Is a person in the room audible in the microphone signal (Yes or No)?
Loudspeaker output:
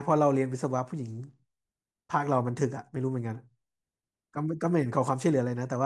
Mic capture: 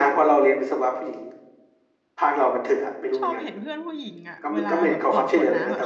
Yes